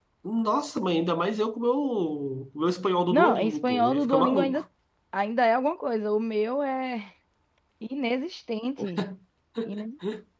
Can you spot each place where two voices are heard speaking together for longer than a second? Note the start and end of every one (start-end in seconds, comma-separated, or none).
3.1-4.6